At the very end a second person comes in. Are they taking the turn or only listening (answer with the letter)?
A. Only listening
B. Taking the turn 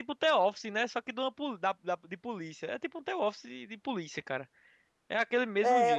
B